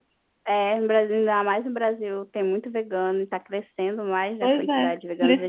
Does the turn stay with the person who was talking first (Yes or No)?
No